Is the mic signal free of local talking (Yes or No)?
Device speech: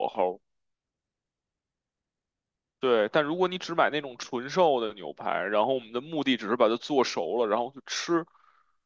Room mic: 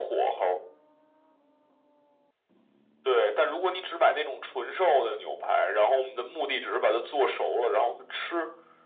Yes